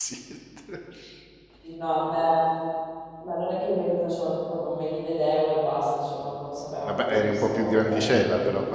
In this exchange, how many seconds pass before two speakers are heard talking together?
6.9 s

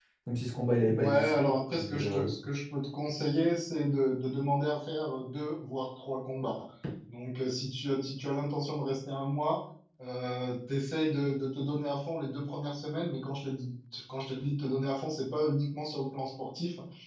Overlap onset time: 0.8 s

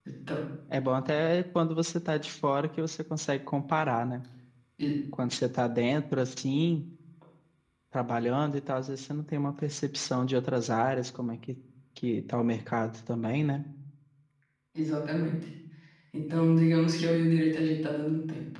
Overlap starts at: none

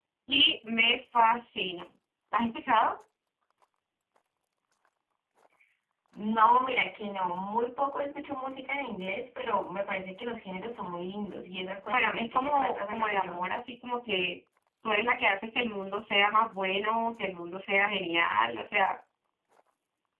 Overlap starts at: 11.9 s

